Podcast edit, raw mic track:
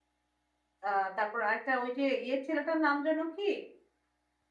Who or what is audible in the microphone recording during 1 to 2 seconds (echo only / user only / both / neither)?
user only